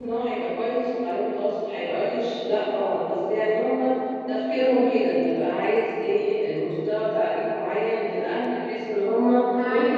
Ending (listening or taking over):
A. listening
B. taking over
B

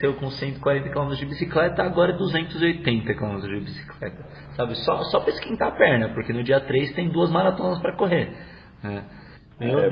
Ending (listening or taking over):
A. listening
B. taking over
B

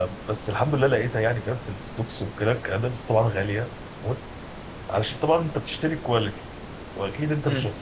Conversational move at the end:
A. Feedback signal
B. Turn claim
A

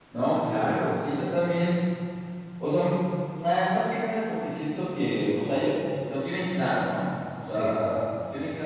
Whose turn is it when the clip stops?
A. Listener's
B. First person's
B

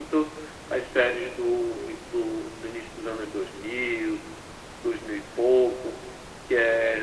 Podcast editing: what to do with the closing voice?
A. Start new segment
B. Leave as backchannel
B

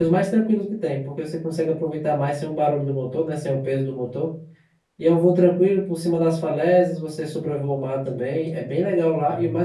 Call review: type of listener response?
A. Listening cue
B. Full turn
A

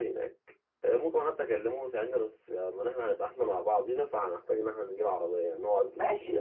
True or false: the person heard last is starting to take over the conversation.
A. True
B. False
A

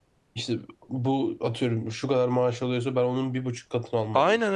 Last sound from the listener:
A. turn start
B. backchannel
B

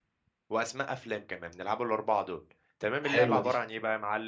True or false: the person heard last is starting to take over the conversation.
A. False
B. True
A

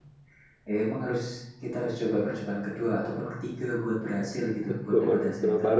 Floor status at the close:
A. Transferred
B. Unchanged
A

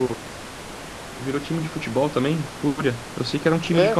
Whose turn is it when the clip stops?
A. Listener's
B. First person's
A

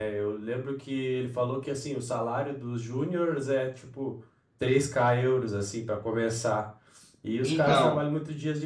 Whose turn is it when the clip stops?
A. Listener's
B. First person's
B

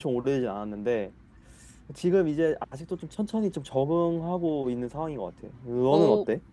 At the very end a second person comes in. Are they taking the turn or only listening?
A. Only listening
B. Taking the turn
B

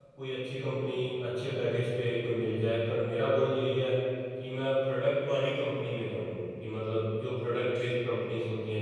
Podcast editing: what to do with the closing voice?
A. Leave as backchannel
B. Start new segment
A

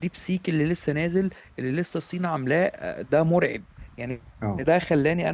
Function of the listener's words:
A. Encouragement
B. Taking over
A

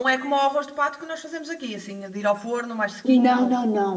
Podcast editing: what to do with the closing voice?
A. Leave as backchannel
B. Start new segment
B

